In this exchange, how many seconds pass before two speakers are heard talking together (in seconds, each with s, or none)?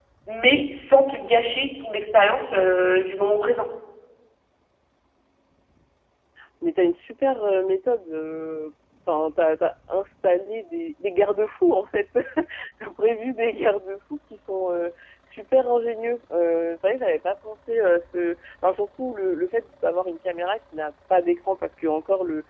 none